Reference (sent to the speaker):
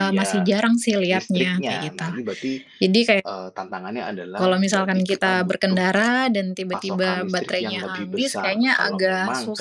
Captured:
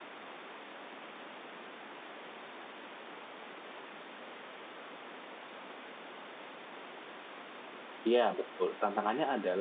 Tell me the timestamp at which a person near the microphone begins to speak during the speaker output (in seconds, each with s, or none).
8.1 s